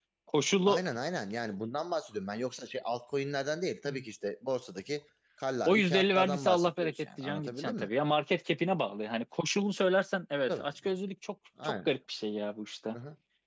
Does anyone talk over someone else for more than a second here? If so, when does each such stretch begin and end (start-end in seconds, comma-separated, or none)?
5.7-7.9